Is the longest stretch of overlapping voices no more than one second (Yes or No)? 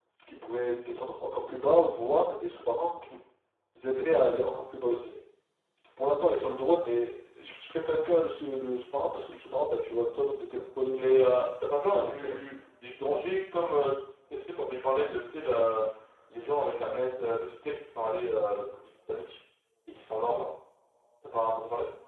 Yes